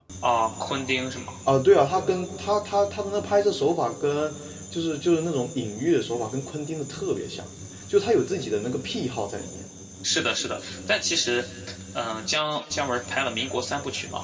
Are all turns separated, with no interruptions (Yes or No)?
Yes